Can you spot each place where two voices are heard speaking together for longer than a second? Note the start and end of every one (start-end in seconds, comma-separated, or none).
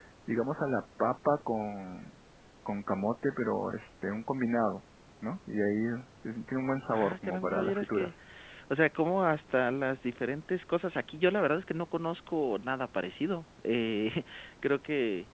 6.9-8.1